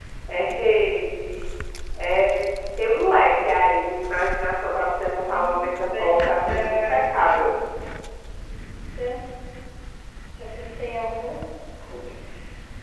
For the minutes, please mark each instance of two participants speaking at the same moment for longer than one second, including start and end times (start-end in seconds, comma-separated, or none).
5.2-7.0